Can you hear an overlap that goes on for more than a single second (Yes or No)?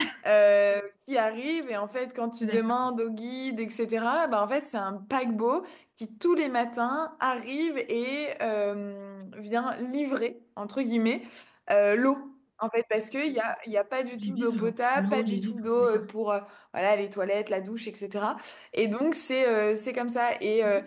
Yes